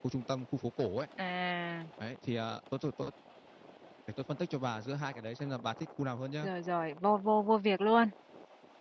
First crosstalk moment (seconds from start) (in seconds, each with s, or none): none